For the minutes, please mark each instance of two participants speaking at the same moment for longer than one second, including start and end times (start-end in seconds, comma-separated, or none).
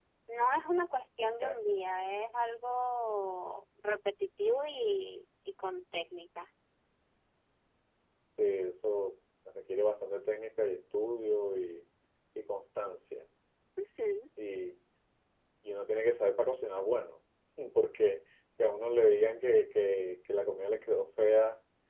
none